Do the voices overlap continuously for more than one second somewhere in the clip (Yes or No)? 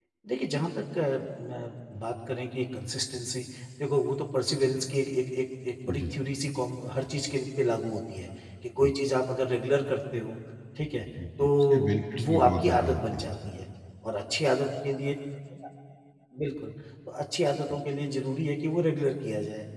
Yes